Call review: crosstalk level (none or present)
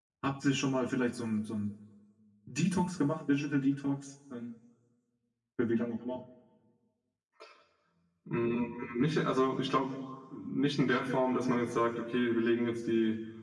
none